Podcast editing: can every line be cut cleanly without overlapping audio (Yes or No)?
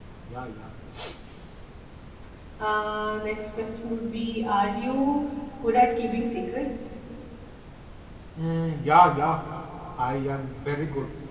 Yes